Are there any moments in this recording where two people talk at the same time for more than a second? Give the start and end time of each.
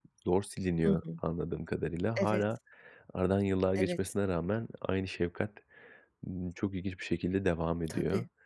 none

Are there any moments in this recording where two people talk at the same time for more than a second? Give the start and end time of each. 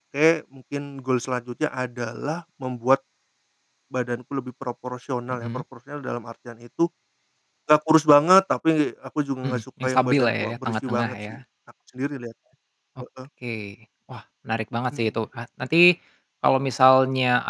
9.4-11.2

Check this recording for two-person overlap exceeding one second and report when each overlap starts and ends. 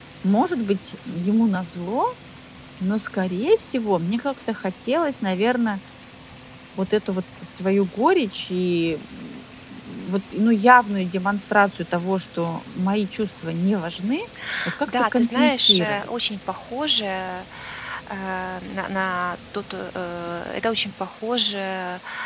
14.9-16.1

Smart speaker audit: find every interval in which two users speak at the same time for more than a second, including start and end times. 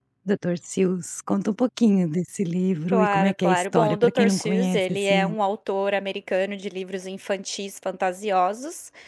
2.9-5.3

